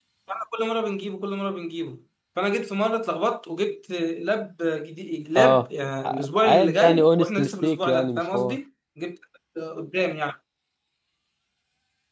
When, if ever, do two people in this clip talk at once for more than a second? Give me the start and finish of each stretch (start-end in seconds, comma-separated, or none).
5.4-8.6